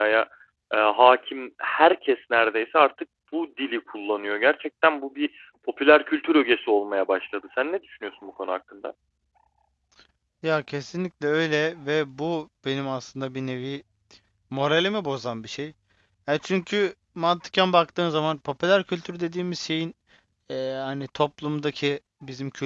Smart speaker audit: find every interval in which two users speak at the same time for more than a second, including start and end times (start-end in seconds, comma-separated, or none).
none